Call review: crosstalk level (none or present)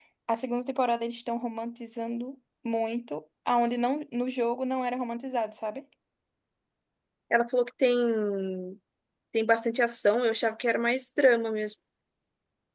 none